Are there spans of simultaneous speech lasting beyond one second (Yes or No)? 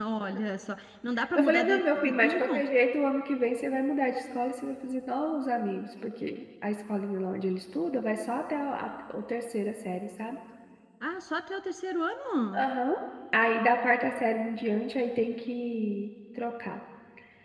Yes